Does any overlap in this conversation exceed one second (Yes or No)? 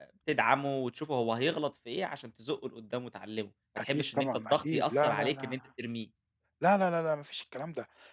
Yes